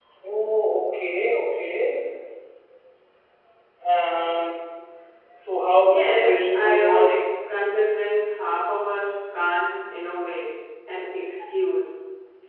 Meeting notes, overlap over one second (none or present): present